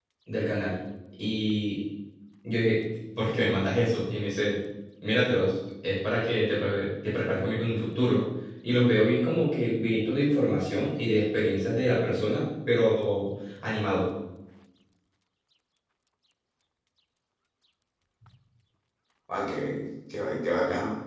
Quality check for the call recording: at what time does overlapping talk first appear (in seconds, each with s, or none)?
none